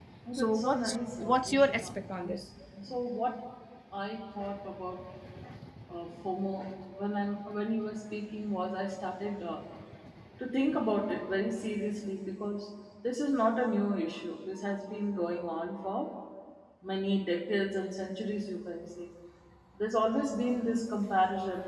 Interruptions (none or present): present